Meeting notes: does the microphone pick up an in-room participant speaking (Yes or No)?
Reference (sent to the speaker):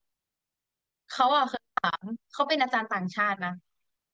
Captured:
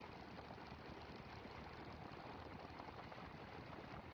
No